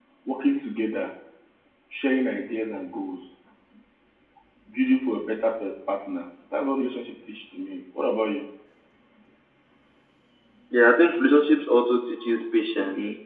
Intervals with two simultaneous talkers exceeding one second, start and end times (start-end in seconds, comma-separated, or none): none